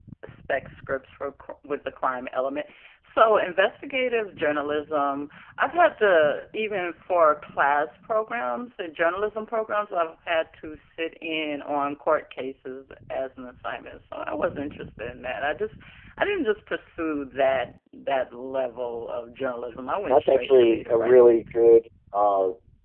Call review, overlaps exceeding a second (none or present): present